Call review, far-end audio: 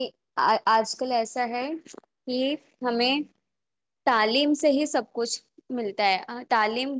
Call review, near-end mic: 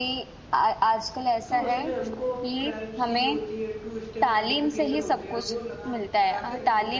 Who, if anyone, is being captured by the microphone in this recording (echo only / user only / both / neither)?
both